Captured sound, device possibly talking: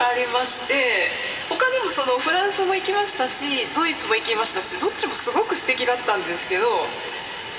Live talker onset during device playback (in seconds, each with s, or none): none